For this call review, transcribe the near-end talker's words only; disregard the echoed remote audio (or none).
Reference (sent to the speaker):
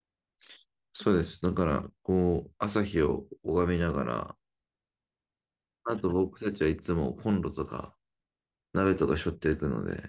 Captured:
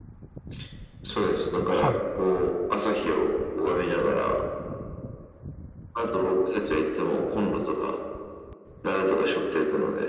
はい。